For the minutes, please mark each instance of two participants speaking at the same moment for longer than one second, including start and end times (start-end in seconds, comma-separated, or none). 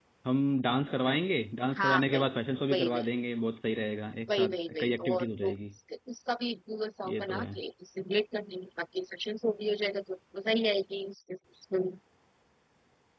4.3-5.6